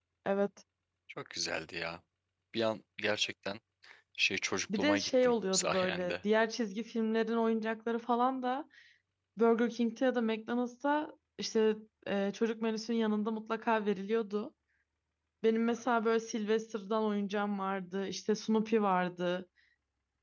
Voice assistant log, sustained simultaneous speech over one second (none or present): present